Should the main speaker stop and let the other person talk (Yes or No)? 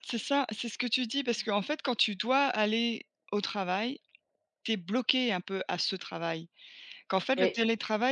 No